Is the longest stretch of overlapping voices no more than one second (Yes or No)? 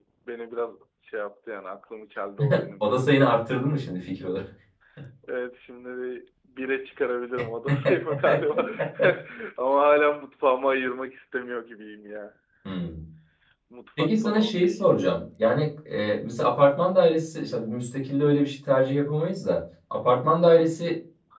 No